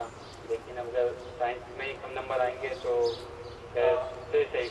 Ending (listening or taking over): listening